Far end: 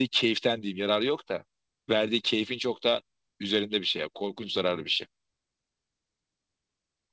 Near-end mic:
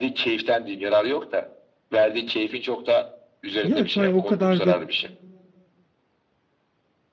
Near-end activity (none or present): present